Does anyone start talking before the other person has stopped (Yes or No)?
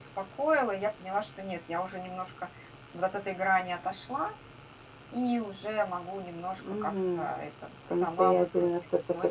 Yes